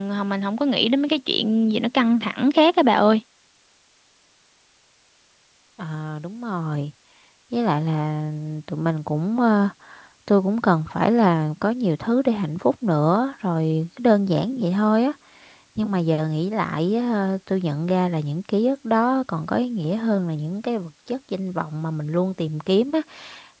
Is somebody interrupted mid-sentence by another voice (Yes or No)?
No